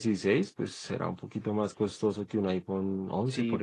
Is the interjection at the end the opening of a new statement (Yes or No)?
Yes